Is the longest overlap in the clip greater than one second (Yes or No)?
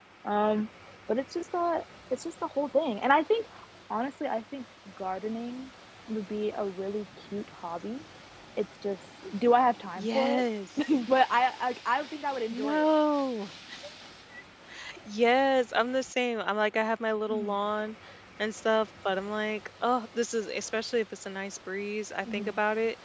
No